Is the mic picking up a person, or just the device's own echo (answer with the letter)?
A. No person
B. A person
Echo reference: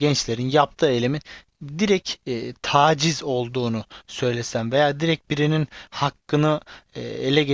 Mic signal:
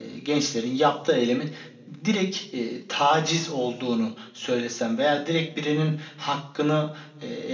A